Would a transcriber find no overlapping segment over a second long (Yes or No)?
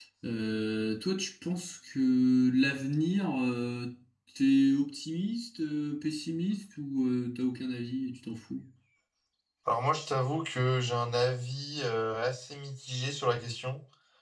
Yes